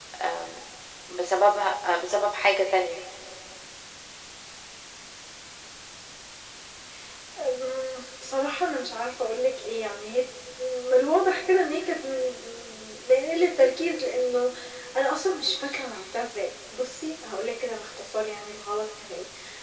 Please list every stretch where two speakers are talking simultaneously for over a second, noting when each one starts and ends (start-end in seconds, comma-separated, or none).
none